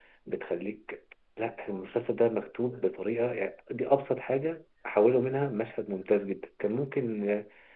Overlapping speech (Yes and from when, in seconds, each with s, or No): No